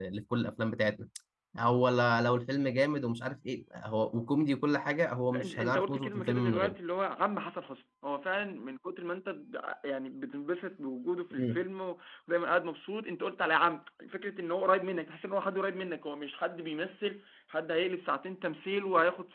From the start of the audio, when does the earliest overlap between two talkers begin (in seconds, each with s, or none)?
5.3 s